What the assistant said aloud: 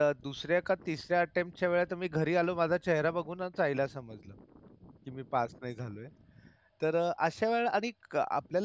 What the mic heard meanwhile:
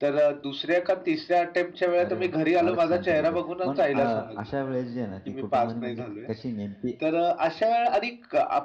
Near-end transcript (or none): अरे वाह! फारच छान पद्धतीने. पण अ, अशा वेळेस जे आहे ना, की कुटुंबाने म्हणजे क- कशी नेमकी